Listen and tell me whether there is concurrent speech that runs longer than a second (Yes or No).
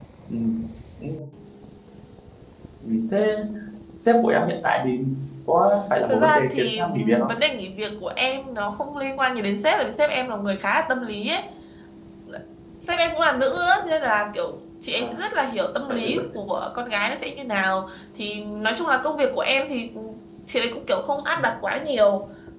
Yes